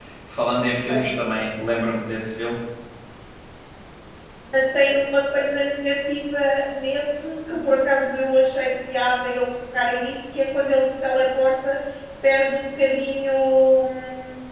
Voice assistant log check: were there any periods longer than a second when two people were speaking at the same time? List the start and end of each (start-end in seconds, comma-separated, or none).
none